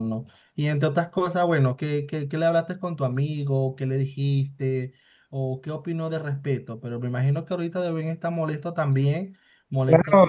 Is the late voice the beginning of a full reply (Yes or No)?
Yes